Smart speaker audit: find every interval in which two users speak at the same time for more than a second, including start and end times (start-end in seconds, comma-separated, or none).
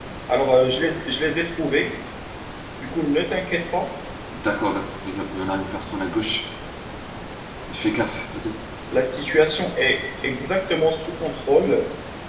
none